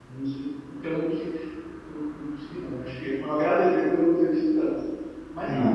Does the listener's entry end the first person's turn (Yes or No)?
Yes